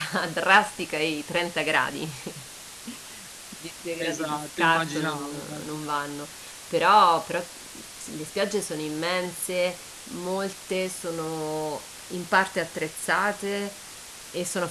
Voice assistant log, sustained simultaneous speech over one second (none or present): present